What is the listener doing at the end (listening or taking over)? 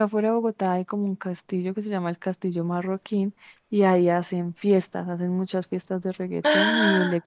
listening